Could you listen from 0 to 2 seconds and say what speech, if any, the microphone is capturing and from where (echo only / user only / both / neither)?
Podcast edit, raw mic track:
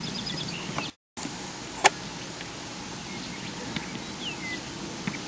neither